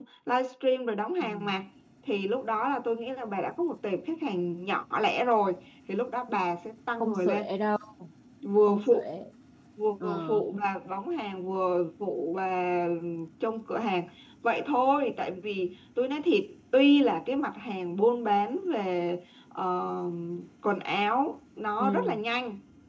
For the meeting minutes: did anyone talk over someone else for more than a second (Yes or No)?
No